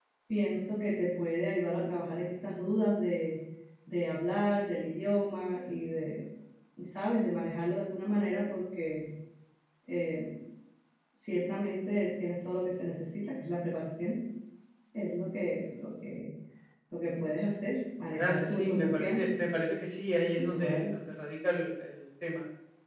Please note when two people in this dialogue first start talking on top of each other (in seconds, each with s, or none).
18.1 s